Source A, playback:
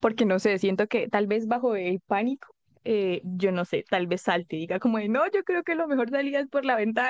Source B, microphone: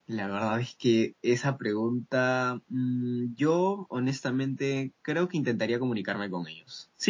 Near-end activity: present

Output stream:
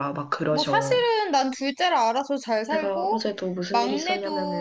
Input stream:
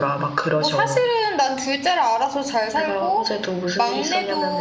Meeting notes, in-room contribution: none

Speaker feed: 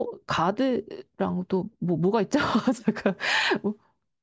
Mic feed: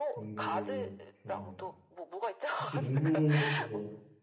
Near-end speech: present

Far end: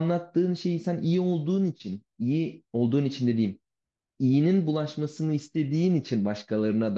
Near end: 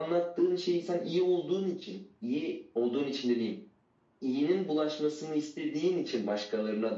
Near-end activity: none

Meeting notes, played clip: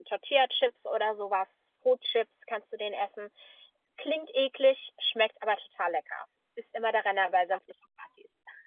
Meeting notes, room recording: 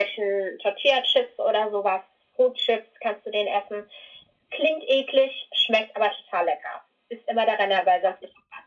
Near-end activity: none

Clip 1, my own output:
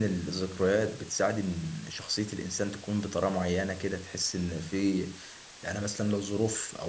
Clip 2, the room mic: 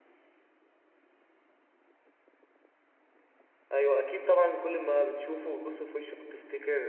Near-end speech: present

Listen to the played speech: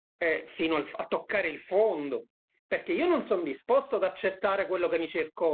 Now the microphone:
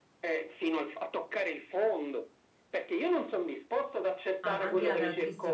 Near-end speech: present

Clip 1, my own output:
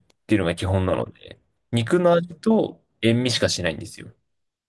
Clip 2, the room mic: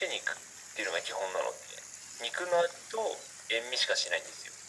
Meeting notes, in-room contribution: none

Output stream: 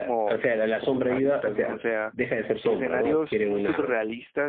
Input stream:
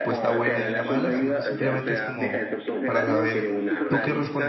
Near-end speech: present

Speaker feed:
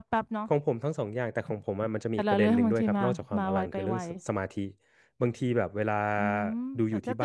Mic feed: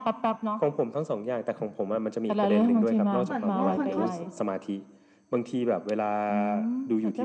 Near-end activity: present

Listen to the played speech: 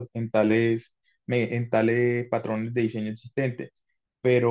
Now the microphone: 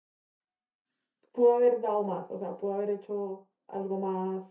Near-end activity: present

